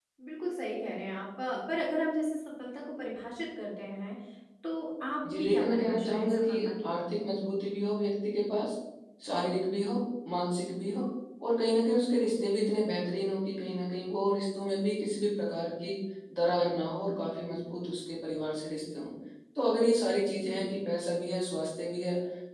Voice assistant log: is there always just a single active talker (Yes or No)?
No